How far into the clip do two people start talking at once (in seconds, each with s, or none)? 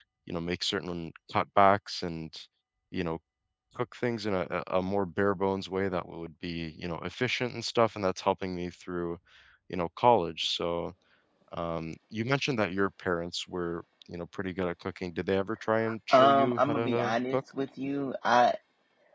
16.1 s